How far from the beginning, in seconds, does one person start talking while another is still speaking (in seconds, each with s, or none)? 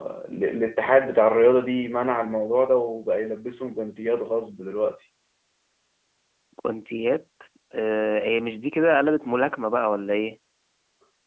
none